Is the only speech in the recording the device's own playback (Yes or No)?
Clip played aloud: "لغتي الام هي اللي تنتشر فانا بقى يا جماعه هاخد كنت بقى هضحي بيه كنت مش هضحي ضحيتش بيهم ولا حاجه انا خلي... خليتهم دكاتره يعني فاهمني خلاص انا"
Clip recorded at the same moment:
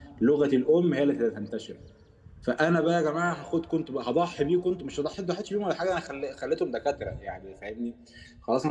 Yes